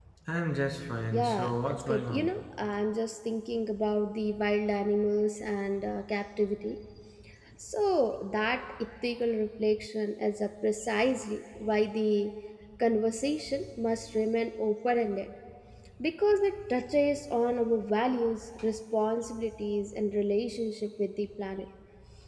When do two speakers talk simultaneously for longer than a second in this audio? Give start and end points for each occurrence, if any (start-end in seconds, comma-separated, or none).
1.1-2.3